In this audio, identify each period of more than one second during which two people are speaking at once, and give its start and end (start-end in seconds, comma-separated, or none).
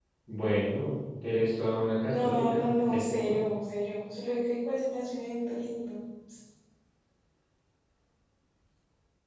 2.0-3.3